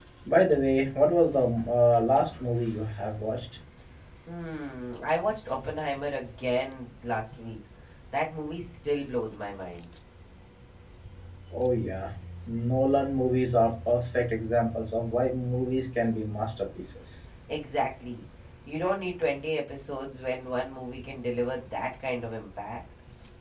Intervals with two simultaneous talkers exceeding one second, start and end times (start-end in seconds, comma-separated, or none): none